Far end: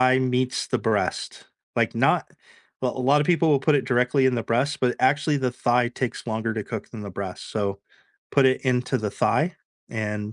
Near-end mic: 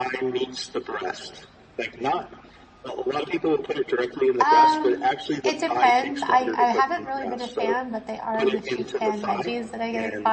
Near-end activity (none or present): present